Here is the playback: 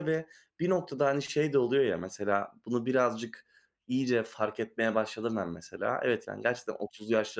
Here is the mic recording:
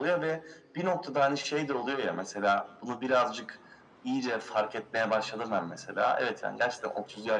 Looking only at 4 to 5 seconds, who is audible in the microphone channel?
echo only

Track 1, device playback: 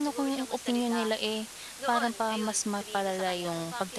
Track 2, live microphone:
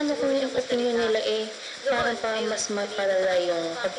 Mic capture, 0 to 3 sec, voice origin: echo only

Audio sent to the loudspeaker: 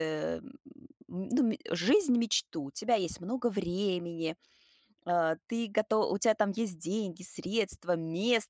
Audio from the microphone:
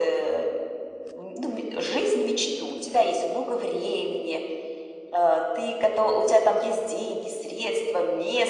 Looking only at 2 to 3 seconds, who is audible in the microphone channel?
echo only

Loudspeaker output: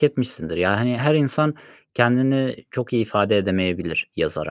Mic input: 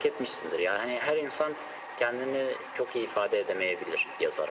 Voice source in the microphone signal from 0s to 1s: echo only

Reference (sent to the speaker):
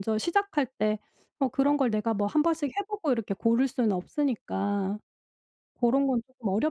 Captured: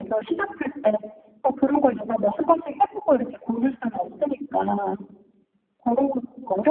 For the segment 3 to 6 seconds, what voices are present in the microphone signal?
echo only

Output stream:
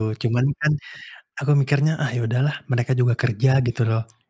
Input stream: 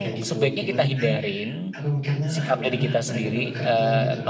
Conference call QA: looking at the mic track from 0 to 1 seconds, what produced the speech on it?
both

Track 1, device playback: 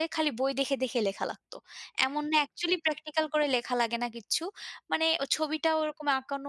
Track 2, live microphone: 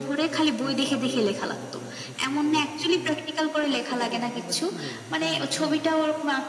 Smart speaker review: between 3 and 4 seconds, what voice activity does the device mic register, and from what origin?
both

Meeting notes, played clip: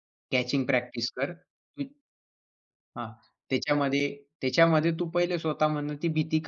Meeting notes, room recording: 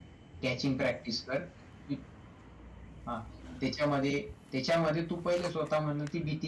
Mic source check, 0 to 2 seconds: echo only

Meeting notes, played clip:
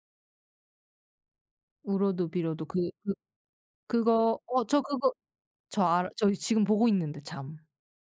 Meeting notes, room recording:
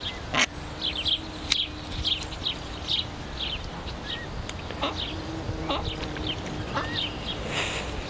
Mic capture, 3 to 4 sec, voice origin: neither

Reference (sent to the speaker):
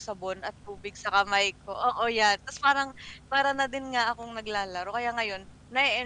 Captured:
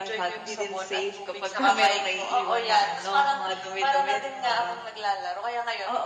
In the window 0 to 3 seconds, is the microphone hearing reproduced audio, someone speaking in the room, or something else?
both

